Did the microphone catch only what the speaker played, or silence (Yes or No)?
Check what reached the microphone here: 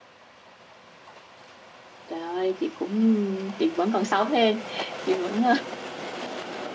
No